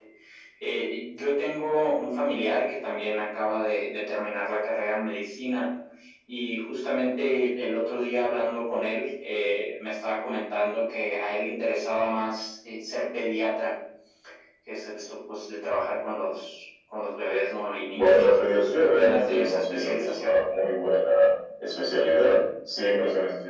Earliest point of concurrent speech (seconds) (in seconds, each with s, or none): 17.9 s